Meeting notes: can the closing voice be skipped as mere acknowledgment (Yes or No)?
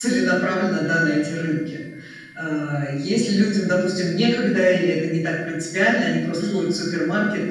Yes